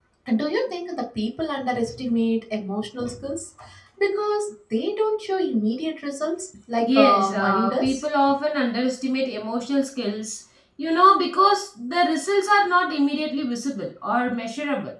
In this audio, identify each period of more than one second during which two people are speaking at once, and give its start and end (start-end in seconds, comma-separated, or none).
6.8-8.0